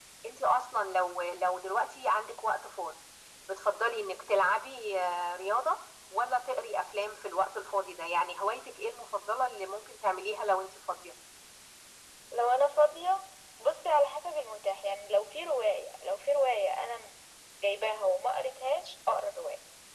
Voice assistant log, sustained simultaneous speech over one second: none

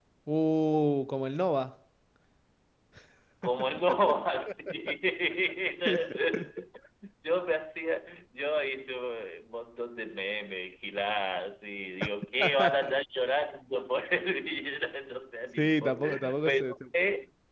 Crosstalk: present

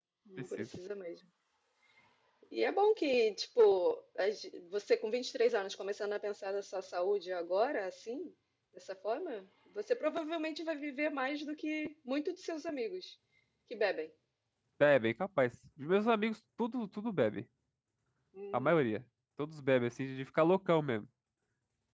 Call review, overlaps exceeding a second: none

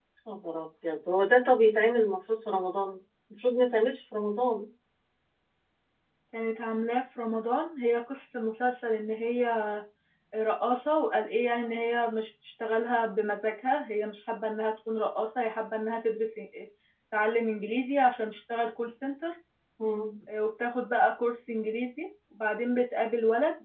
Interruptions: none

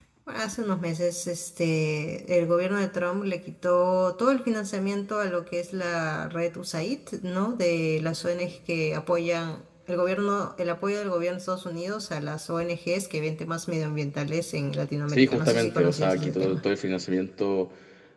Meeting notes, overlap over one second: present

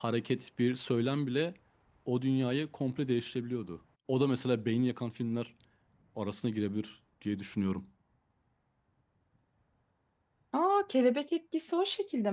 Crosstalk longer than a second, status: none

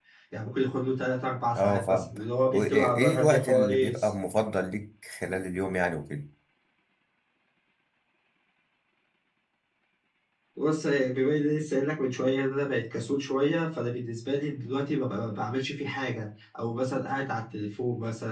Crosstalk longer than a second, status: present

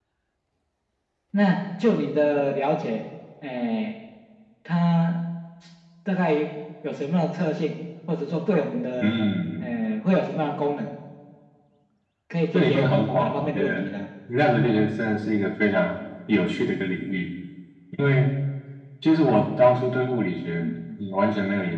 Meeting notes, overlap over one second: present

